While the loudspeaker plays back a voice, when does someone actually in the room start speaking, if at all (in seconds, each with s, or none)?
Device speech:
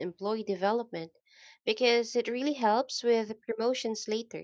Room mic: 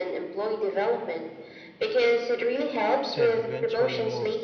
3.1 s